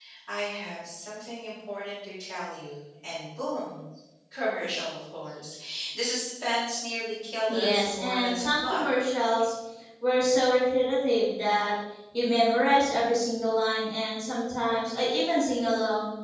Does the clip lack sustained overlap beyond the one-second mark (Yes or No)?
No